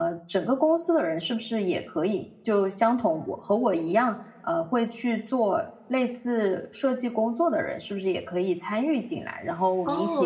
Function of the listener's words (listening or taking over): taking over